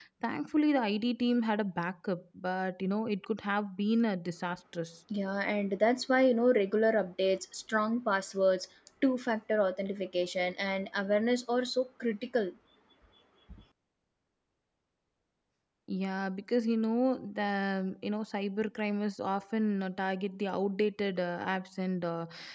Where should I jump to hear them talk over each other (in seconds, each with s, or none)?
none